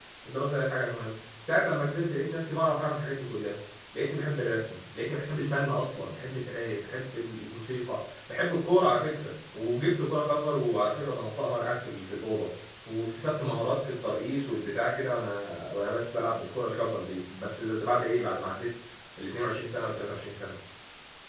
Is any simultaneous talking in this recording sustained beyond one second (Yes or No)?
No